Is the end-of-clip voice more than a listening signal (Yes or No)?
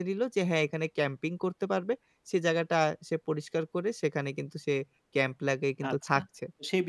Yes